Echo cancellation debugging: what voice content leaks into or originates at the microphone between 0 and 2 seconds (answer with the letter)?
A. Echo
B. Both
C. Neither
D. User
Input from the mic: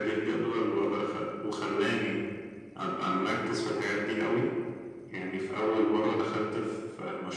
A